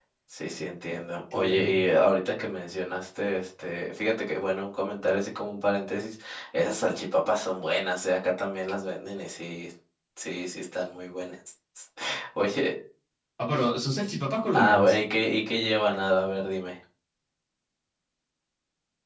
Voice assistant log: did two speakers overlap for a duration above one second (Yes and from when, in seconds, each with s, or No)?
No